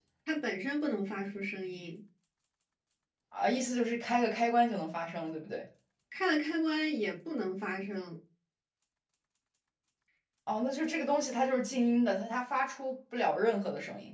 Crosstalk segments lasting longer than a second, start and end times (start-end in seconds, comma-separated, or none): none